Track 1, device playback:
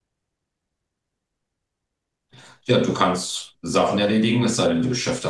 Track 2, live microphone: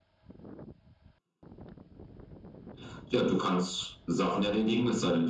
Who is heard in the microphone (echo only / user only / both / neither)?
echo only